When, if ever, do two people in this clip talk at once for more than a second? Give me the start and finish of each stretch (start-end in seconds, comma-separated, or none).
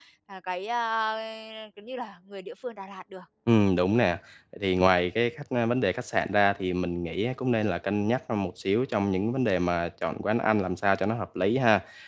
none